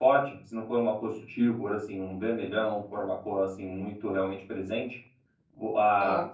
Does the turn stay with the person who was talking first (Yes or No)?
Yes